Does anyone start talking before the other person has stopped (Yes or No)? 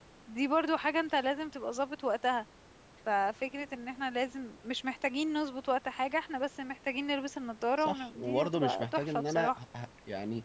Yes